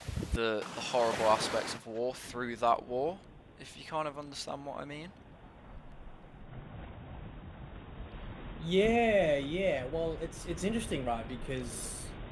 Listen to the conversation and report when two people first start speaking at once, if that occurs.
none

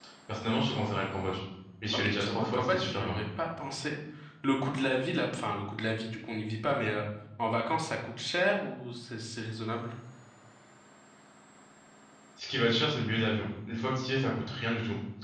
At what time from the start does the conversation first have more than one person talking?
1.9 s

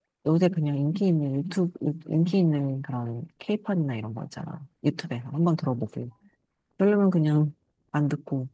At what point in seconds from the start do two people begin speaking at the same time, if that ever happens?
none

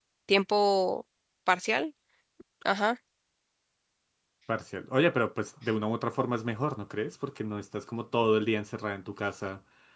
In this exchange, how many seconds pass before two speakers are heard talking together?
none

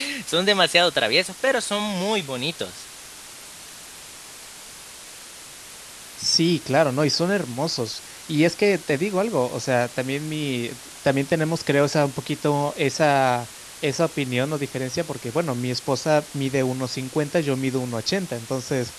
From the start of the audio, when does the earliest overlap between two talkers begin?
none

